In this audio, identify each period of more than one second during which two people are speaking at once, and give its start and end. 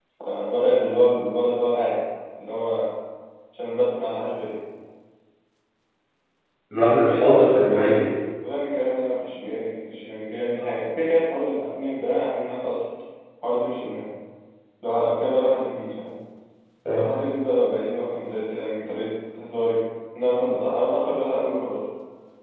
6.8-8.1

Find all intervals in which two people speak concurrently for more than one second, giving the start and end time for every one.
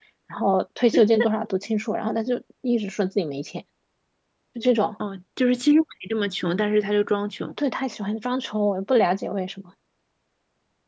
none

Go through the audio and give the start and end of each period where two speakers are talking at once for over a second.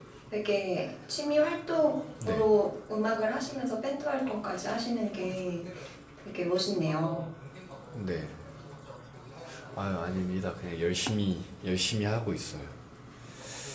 none

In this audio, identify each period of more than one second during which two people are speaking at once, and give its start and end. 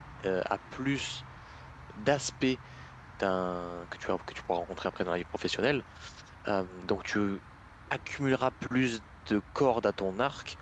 none

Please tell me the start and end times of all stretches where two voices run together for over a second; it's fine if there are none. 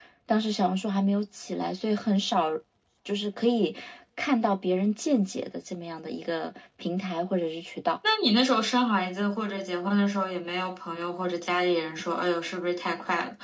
none

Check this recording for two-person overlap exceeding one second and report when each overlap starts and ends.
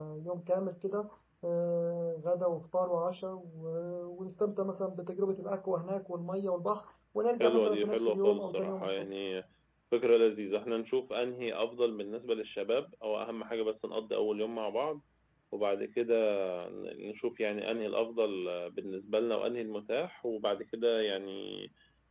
7.4-9.1

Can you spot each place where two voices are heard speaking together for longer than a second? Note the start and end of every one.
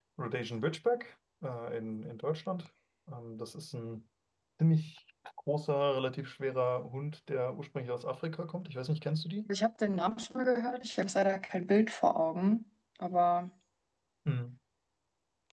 none

